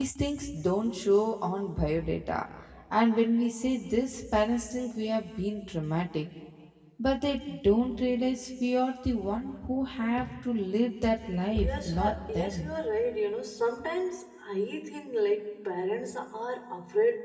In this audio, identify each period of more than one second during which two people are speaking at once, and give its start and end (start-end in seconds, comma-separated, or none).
11.5-12.7